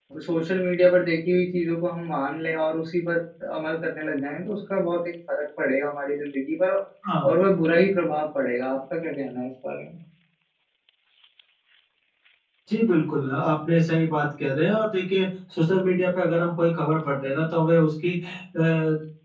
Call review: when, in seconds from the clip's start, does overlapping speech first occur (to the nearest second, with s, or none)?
none